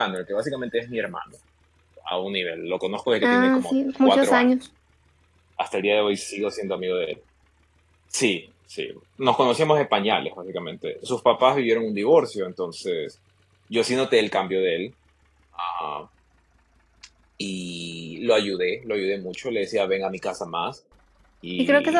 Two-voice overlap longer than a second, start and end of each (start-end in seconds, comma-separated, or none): 3.2-4.5